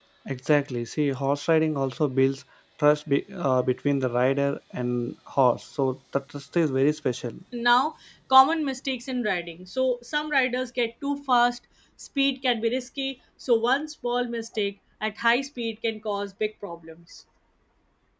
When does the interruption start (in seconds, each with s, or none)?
none